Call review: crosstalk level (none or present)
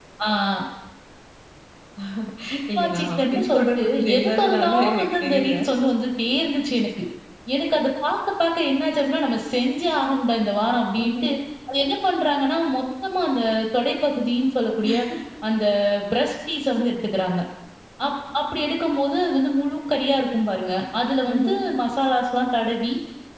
present